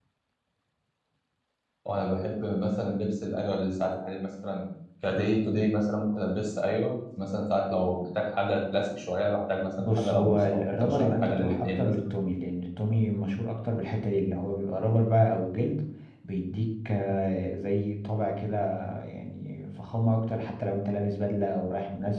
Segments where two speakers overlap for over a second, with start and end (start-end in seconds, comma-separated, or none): 9.8-11.9